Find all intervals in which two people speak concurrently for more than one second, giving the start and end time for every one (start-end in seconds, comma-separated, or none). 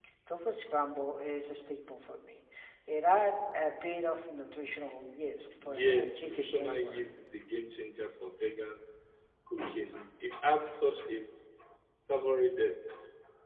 5.6-7.0